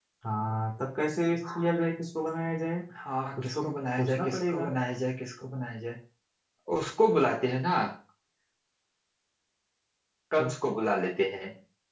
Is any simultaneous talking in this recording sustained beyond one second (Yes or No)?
Yes